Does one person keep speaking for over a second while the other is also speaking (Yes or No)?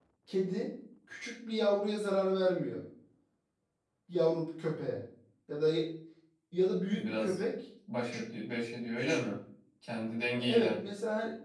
No